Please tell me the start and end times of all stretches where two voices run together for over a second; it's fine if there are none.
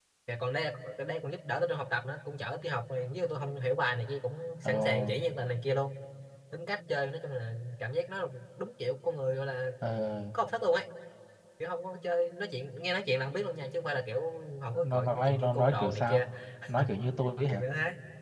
14.7-16.2

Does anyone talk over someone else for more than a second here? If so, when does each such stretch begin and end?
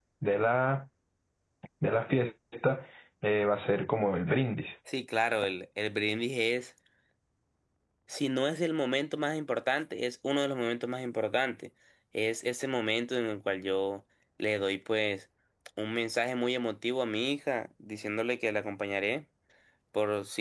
none

